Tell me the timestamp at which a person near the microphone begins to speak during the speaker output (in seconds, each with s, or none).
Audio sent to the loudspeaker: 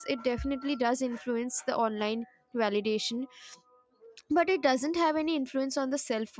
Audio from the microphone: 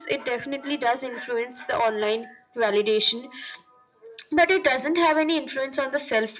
none